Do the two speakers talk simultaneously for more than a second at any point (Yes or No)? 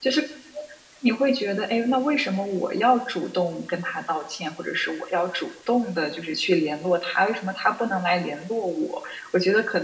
No